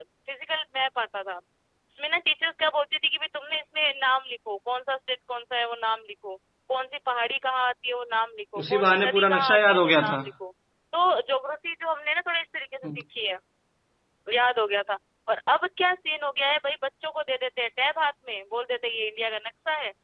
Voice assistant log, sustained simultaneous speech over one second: present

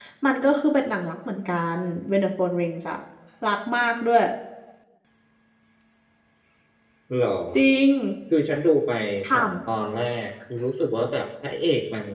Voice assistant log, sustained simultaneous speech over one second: none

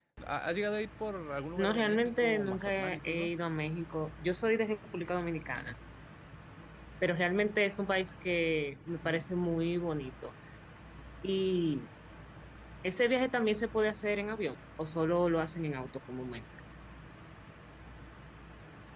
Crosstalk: present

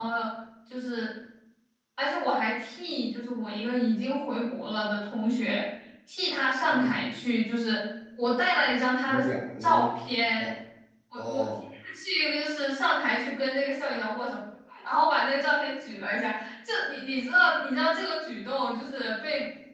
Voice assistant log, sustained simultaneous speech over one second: none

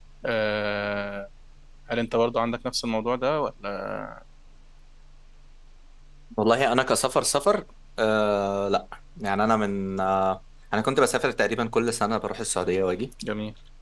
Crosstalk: none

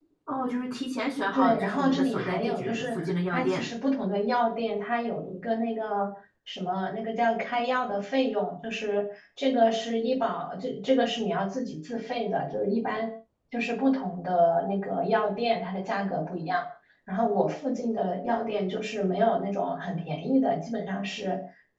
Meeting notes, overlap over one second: present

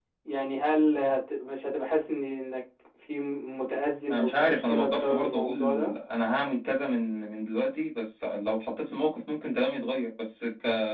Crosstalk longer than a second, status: present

